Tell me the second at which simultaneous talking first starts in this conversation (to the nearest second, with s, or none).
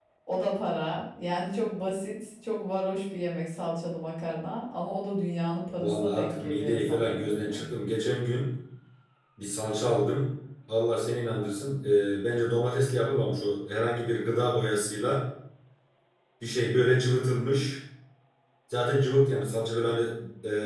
6 s